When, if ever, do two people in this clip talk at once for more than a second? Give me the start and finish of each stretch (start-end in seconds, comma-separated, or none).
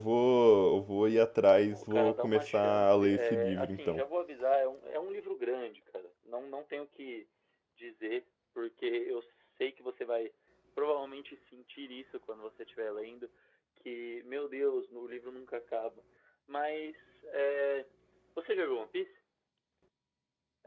1.7-4.0